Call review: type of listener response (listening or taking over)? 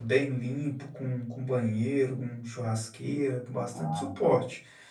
listening